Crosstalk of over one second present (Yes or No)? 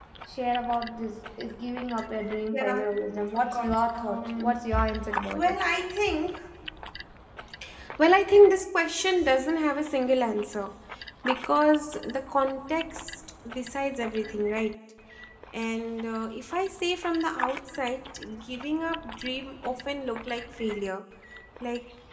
Yes